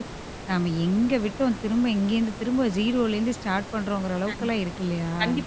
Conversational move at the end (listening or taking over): taking over